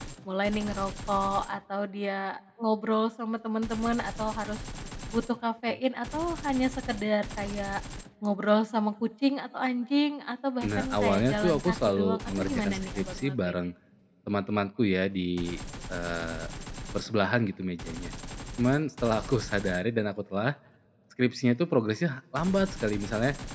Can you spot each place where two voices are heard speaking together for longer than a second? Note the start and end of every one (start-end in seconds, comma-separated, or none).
10.6-13.5